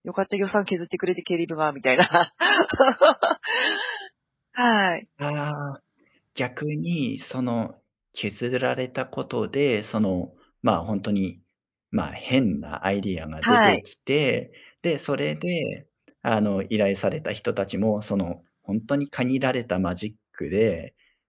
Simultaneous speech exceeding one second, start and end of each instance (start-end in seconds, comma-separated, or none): none